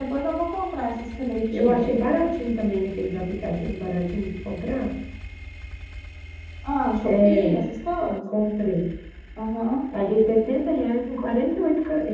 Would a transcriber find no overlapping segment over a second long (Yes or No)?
Yes